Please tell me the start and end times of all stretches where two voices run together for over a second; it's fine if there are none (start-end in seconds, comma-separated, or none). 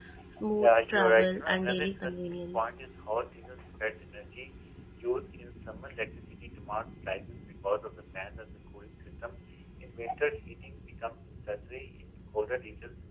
0.6-2.7